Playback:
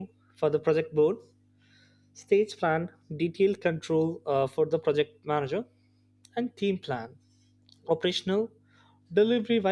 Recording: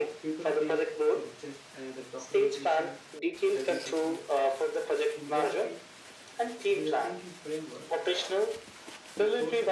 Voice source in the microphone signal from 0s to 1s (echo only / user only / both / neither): both